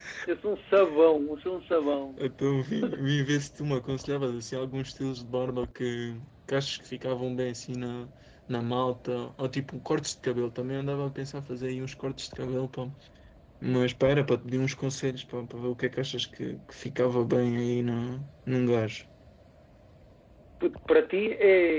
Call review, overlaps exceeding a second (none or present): none